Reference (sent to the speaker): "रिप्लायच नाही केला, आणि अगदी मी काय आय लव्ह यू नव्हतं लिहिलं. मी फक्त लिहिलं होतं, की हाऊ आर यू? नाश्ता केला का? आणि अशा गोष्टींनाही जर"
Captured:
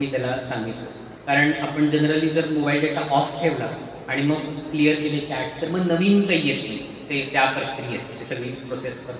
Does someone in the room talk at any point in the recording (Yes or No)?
Yes